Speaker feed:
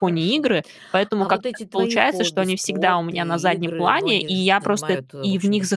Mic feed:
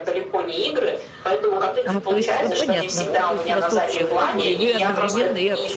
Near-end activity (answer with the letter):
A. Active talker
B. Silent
A